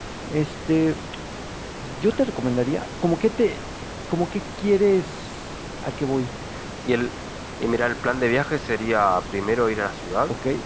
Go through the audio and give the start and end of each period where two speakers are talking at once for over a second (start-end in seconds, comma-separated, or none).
none